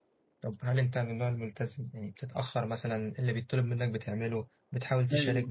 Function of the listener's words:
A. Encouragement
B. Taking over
B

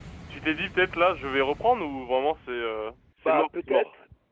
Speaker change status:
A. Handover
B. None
A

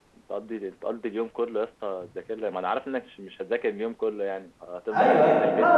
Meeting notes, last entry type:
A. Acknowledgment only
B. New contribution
B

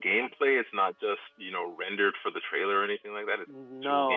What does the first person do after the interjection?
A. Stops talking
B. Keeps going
A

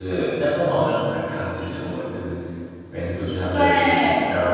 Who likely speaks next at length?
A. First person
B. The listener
A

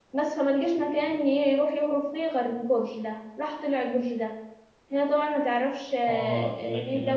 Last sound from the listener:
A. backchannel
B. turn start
B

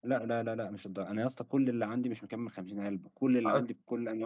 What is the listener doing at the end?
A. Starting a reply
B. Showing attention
B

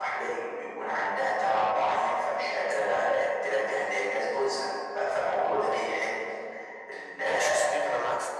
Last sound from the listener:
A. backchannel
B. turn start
B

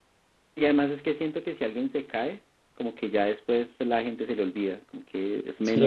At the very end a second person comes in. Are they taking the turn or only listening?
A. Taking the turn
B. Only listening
A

